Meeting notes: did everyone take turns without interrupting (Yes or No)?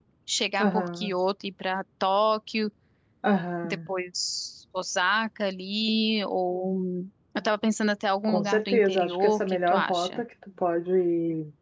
No